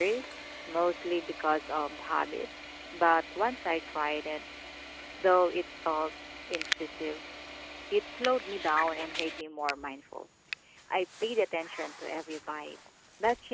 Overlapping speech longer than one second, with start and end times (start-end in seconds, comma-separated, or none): none